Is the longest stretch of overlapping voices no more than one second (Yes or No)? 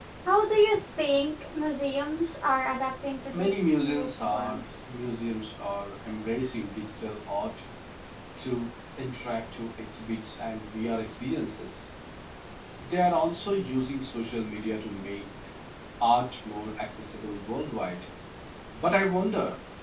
No